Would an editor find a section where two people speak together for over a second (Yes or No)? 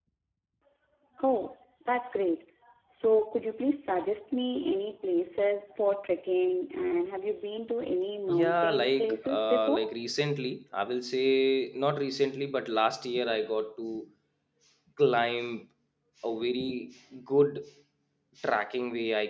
Yes